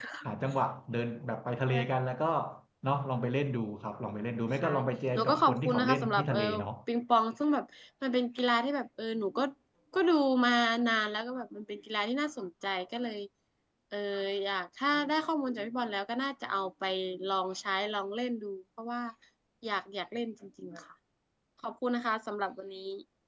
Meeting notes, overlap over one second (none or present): present